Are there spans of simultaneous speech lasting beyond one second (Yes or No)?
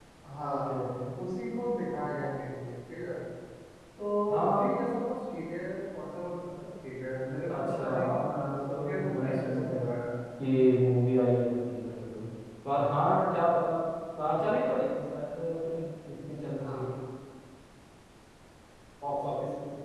Yes